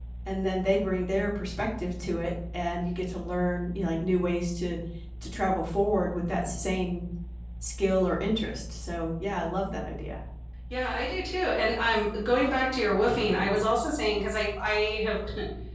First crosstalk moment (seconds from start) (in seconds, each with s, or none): none